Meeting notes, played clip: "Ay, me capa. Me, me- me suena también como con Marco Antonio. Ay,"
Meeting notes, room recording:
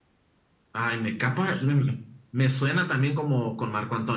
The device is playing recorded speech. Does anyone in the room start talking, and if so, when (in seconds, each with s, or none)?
none